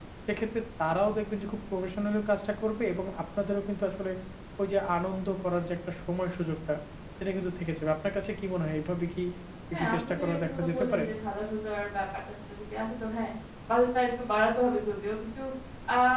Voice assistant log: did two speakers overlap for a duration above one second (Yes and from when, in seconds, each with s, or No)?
Yes, from 9.7 s